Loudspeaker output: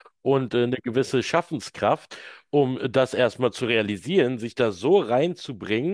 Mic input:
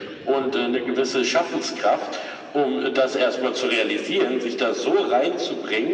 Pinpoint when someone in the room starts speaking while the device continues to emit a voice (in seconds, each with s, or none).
none